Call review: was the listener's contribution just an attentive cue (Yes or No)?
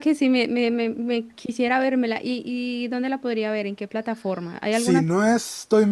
No